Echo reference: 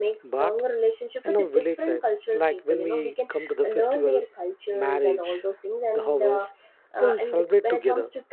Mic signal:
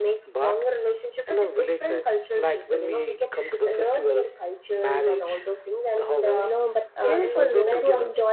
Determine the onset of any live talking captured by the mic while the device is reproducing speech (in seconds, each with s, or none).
6.4 s